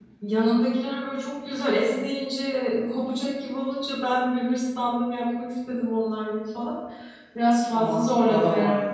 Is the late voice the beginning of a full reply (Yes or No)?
Yes